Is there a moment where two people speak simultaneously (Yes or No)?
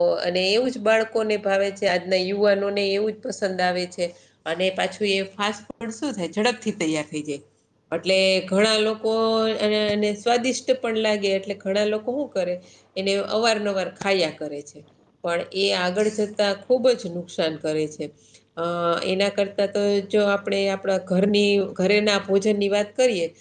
No